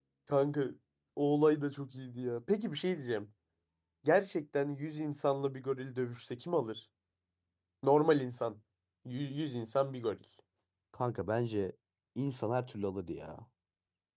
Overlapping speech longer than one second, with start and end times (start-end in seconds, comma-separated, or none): none